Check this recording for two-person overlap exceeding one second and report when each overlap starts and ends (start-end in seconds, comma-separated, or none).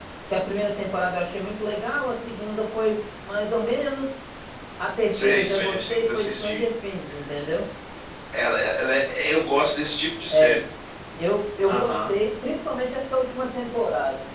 5.1-6.6